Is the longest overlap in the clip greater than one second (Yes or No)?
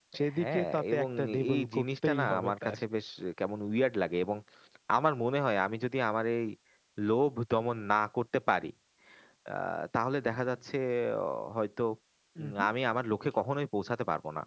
Yes